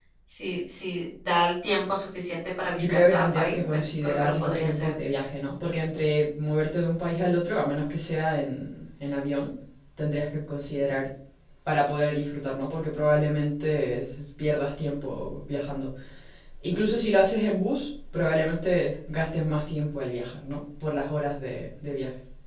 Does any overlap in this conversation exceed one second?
Yes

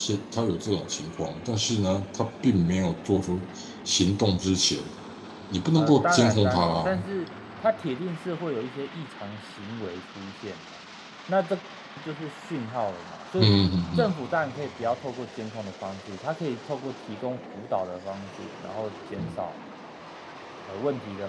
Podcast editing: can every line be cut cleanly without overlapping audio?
No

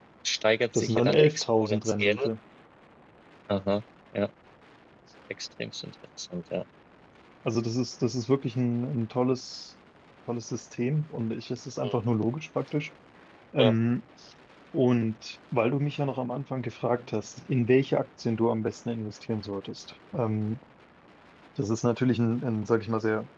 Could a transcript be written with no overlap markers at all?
No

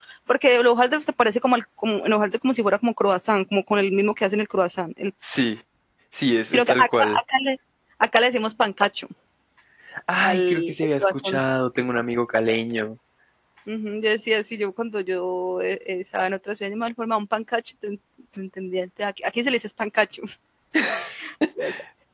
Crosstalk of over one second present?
Yes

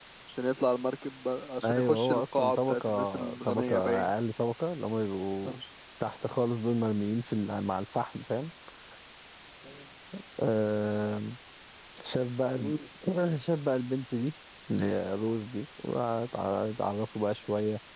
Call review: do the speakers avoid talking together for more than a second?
No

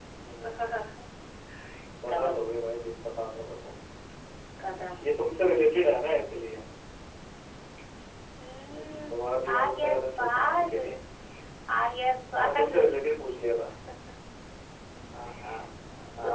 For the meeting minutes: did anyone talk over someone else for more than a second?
Yes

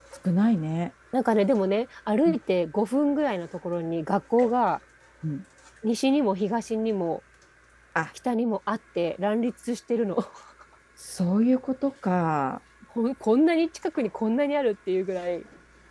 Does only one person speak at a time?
Yes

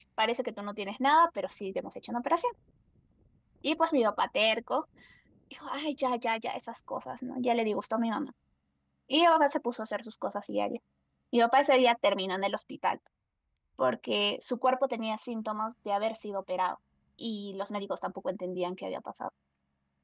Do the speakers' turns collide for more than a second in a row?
No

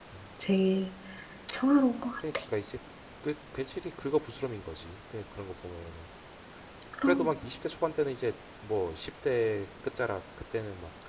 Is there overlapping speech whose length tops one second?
No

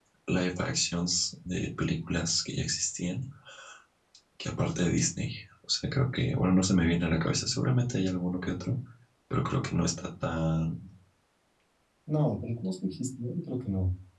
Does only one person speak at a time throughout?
Yes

